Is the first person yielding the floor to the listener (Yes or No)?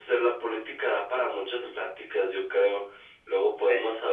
No